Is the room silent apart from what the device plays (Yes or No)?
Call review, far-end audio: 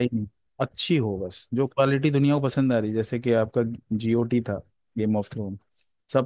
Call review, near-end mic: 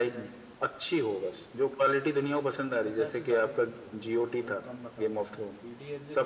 No